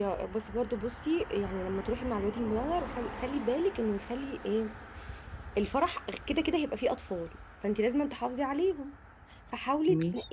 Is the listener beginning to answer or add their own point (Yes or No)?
No